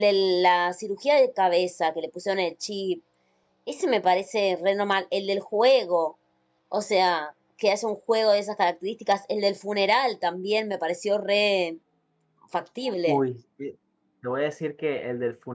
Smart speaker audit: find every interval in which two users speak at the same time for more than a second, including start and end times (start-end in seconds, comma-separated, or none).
none